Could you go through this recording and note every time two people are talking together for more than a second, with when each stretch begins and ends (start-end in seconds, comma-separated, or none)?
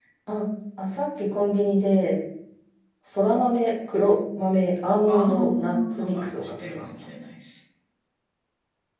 5.1-6.9